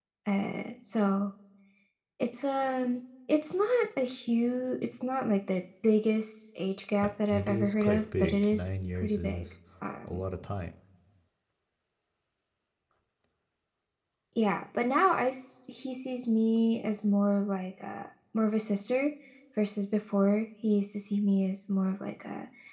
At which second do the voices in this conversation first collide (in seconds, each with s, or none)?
7.0 s